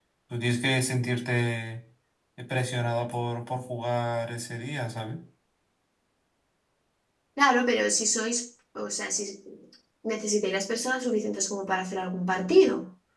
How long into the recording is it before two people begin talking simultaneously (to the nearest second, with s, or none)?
none